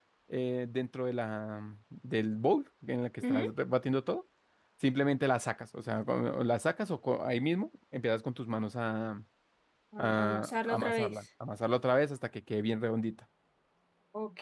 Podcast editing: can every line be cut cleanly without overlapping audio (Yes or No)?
No